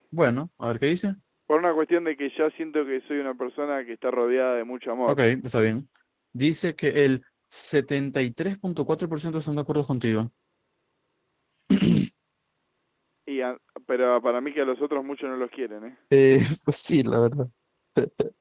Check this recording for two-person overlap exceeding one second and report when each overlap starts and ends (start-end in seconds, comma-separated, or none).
none